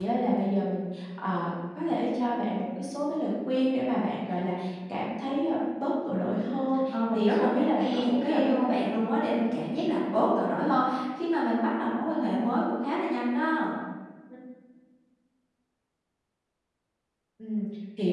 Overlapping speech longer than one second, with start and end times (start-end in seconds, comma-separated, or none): 7.1-8.8